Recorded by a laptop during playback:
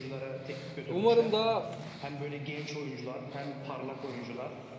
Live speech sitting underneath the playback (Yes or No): No